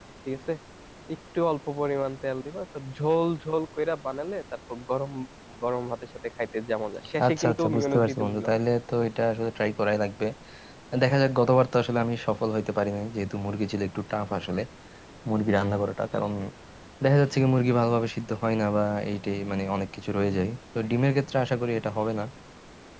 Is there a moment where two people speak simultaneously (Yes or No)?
Yes